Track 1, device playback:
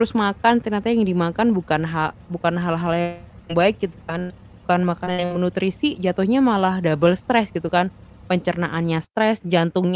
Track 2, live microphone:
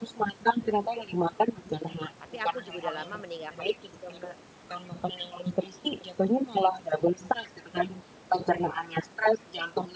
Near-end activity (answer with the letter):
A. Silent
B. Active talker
B